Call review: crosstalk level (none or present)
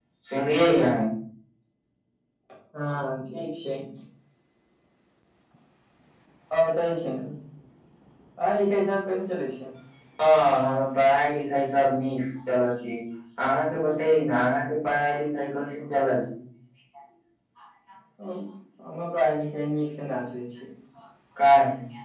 none